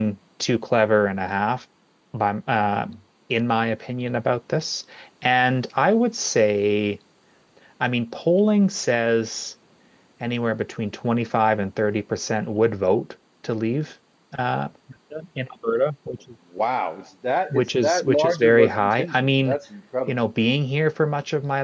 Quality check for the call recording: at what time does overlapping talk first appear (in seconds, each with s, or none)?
17.5 s